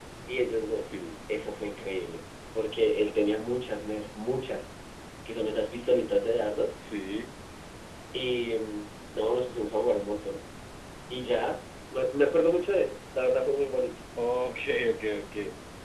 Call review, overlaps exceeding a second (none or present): none